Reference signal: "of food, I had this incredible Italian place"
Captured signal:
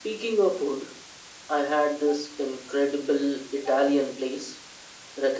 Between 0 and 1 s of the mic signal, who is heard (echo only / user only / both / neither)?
echo only